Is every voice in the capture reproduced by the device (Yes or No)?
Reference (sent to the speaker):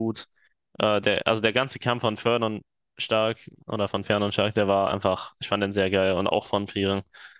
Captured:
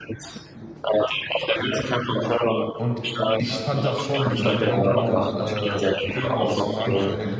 No